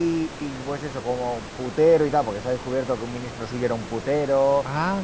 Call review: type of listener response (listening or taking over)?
listening